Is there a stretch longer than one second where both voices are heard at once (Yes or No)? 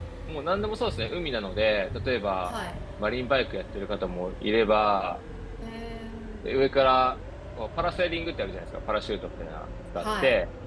No